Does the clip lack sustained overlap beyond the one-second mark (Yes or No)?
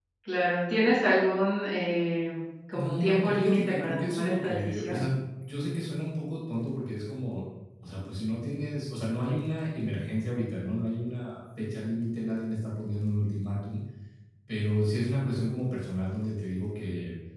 No